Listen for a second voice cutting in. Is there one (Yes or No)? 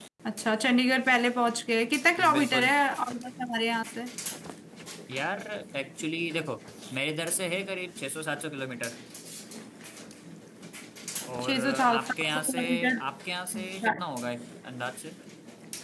Yes